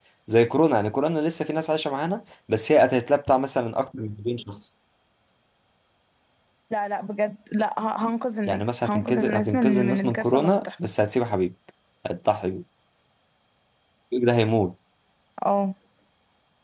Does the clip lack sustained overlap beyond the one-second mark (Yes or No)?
No